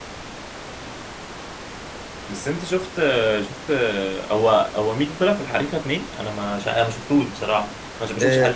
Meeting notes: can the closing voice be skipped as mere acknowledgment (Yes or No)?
No